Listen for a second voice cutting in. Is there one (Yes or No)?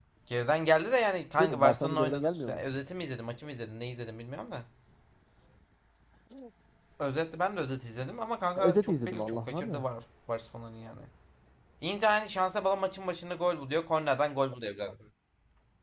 Yes